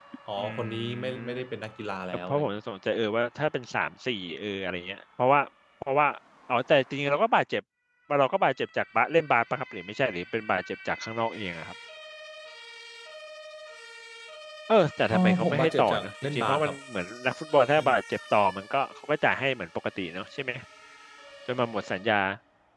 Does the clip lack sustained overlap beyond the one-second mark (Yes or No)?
No